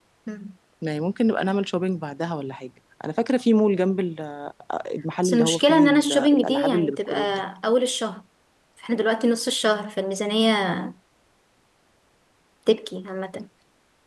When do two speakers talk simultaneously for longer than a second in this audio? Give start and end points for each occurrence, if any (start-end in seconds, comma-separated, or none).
5.2-7.2